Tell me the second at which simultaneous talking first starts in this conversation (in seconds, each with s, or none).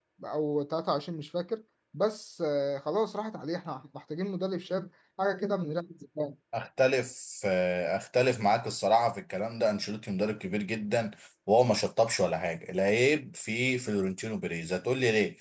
none